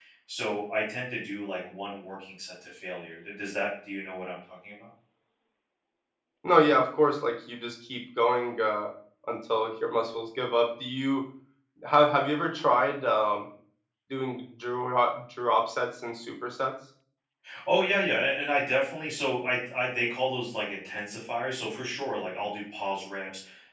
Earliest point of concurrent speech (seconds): none

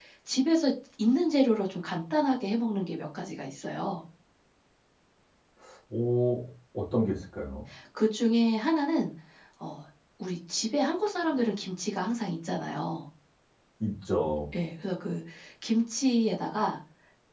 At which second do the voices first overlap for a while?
none

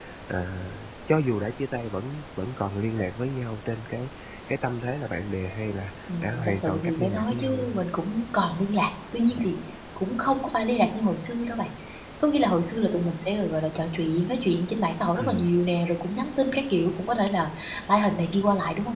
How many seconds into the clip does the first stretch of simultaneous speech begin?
6.1 s

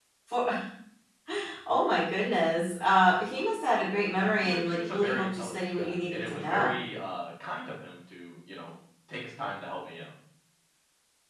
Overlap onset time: 4.1 s

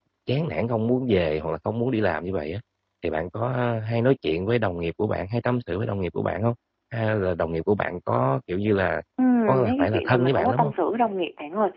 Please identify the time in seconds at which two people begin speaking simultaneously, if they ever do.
9.5 s

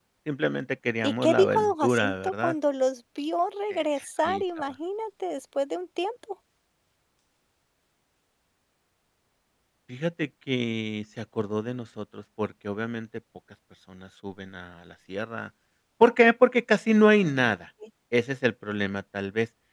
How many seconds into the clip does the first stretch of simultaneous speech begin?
1.0 s

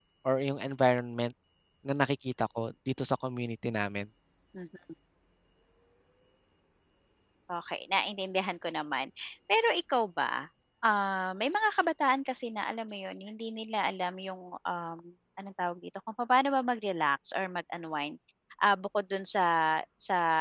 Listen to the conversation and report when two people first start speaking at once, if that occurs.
none

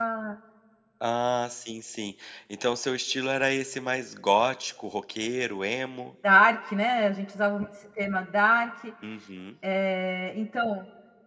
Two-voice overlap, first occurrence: none

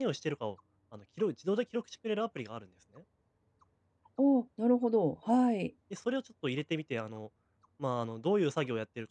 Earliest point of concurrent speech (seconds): none

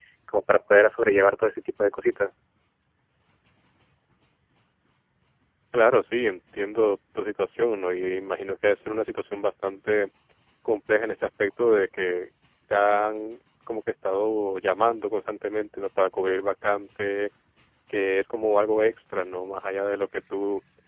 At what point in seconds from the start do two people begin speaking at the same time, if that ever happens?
none

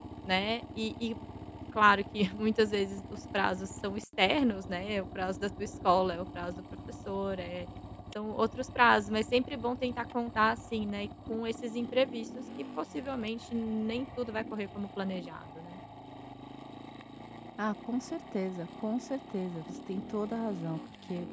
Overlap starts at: none

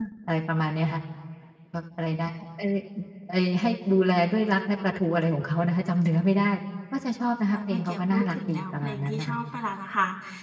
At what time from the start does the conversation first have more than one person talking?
7.5 s

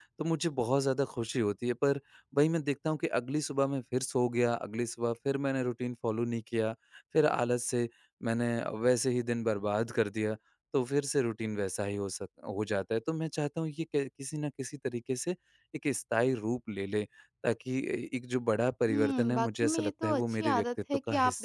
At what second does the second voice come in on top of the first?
18.9 s

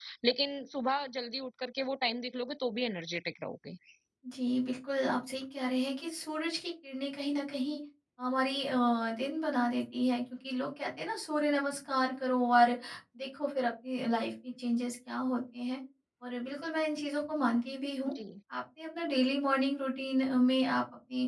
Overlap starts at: none

